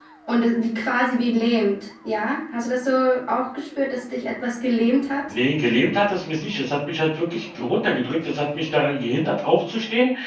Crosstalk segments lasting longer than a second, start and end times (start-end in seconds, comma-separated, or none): none